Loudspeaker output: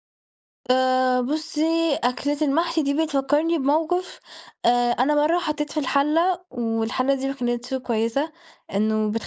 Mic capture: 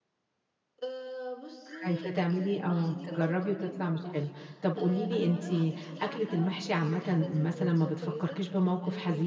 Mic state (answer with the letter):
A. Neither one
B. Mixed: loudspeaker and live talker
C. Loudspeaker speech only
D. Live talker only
B